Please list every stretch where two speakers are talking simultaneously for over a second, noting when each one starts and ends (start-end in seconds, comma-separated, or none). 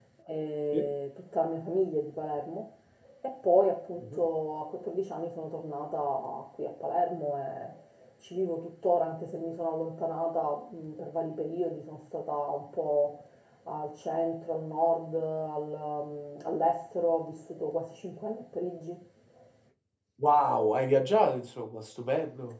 none